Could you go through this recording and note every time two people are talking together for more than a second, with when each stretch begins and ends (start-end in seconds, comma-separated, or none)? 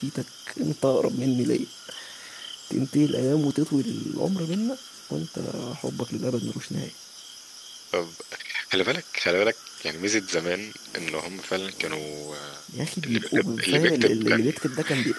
13.0-14.5